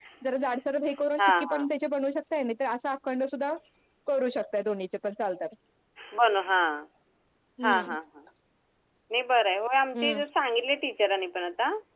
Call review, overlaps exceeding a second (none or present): none